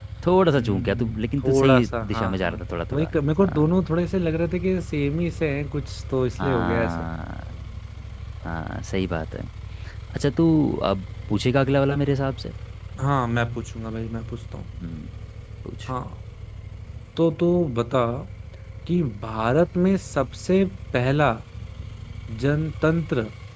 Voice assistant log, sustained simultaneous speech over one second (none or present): present